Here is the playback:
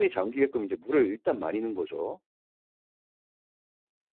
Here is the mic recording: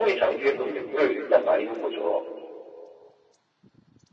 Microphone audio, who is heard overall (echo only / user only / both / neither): echo only